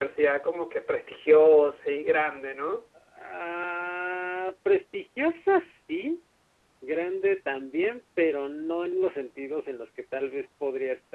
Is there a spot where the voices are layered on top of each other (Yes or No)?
No